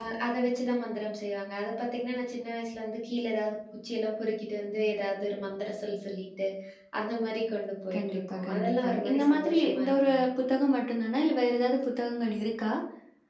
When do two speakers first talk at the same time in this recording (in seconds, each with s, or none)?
7.9 s